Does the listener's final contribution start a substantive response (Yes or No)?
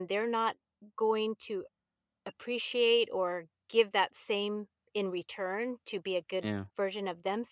No